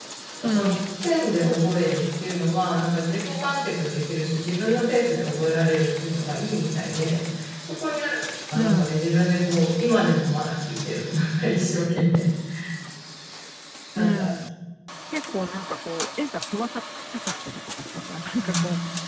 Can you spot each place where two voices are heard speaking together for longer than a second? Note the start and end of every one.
none

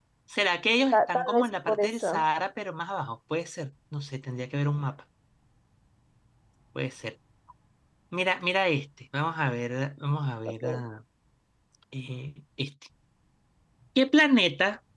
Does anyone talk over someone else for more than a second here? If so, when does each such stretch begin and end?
0.9-2.2

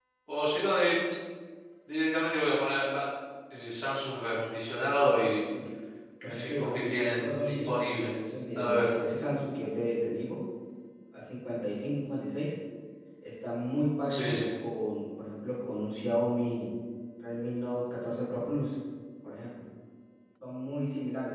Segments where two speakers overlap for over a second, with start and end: 6.2-8.1

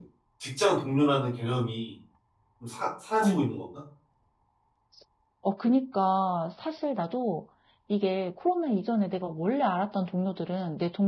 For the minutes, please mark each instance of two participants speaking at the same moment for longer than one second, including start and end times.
none

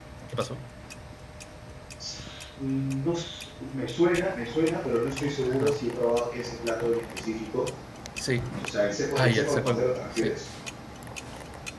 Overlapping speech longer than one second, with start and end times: 9.2-10.4

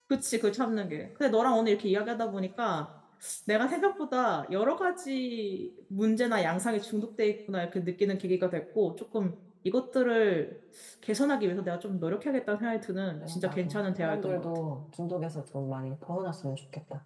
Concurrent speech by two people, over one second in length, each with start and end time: 13.2-14.4

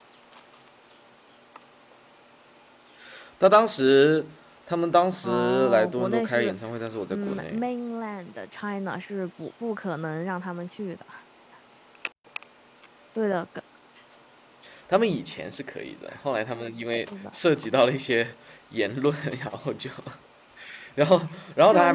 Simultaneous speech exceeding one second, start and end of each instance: 5.2-6.5

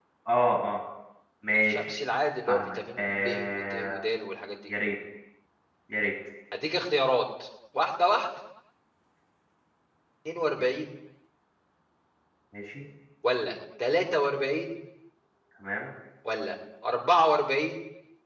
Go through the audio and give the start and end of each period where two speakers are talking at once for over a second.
2.5-4.0

